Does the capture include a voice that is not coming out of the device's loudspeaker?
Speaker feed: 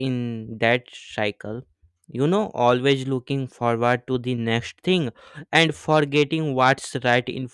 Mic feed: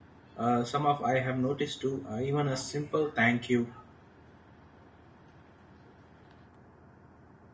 Yes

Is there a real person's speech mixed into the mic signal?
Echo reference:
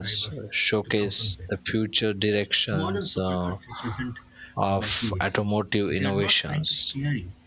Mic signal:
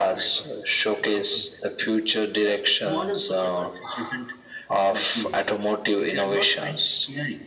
No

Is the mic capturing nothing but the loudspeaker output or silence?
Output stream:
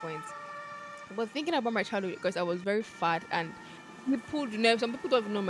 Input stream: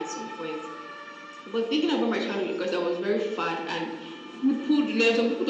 Yes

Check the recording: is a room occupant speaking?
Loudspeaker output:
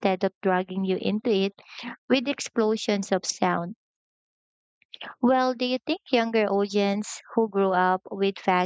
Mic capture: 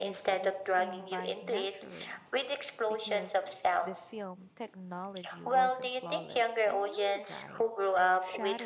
Yes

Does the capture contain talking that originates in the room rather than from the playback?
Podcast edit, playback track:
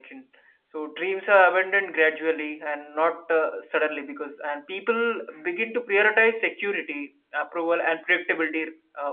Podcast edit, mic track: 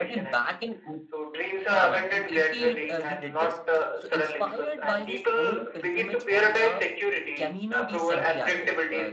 Yes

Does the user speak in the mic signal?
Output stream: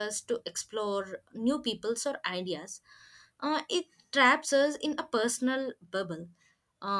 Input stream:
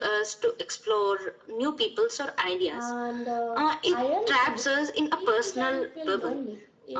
Yes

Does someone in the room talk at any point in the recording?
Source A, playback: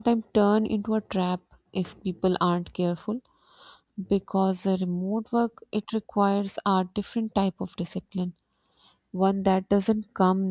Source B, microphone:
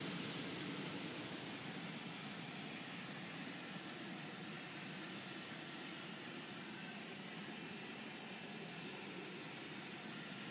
No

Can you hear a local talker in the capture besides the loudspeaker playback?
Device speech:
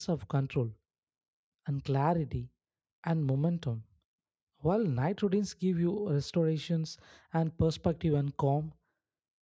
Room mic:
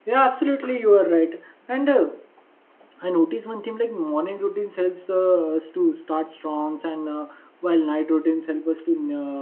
Yes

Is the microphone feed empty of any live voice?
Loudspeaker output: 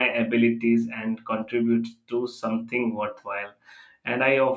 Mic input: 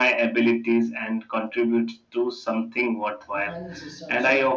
No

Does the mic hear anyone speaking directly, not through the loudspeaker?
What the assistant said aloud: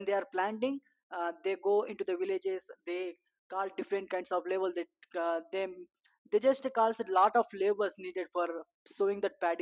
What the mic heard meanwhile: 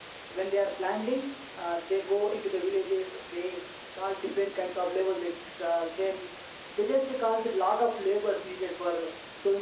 No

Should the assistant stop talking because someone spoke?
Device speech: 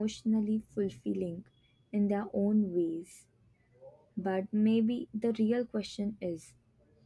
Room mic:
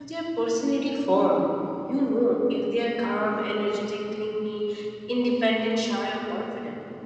Yes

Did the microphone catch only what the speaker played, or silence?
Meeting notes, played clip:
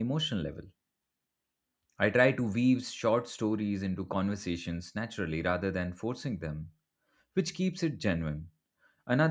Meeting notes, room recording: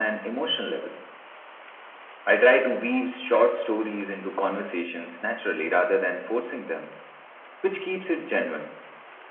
Yes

